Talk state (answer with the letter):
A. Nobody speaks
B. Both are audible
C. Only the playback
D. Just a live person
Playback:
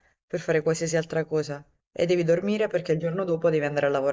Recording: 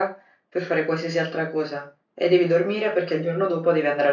C